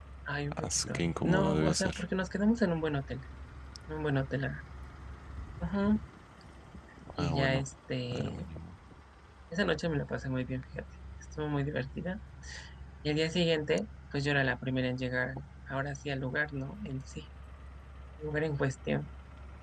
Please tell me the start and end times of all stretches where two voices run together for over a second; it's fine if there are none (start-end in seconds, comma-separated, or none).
0.6-2.0